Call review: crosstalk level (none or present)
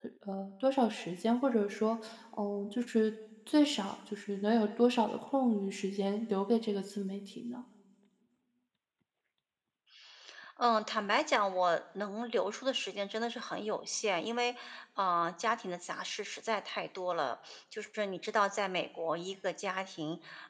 none